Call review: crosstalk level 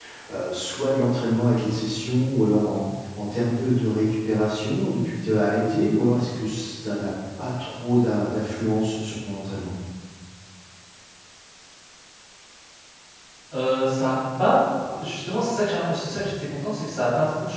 none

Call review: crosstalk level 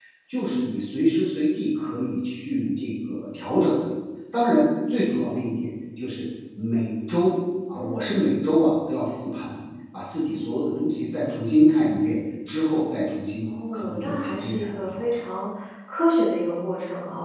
present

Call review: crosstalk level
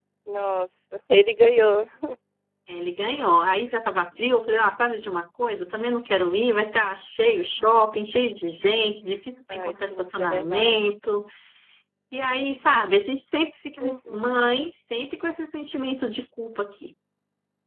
present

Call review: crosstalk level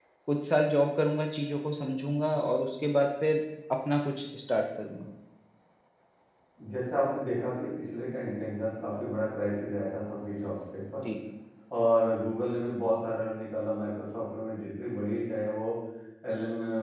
none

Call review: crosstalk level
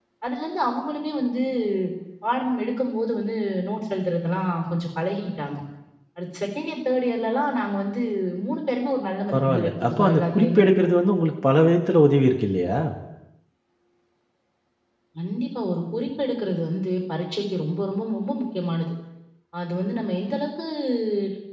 present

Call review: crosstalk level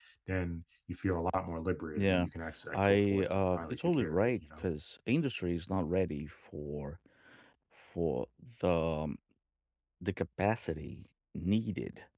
present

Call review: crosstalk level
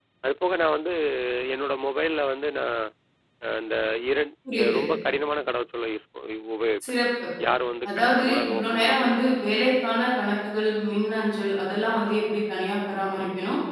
present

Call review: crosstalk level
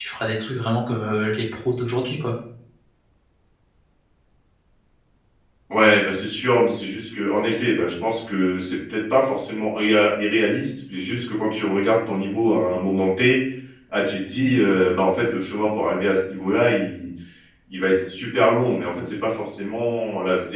none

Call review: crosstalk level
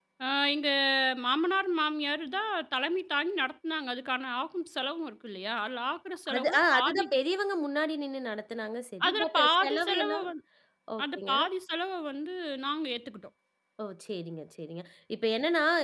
present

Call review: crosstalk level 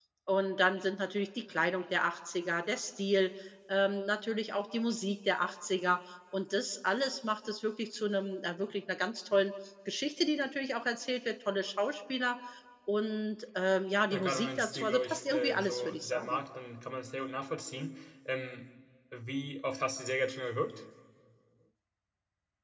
present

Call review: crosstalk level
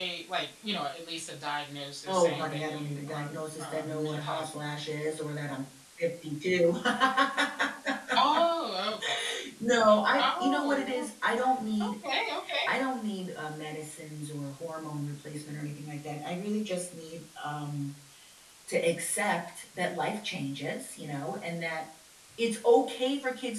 present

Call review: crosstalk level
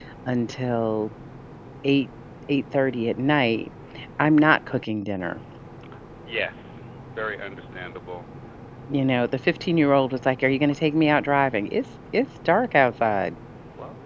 none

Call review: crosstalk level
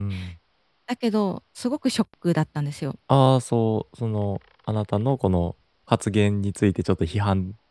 none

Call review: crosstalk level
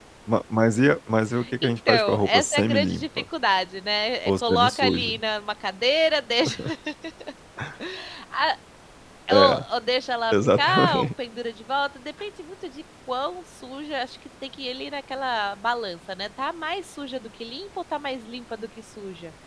present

